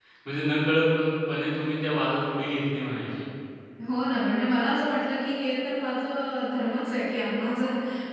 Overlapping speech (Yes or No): No